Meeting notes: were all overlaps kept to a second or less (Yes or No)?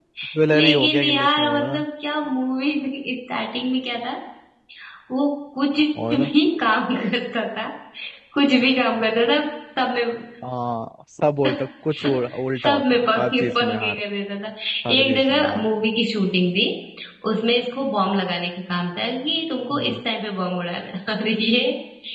No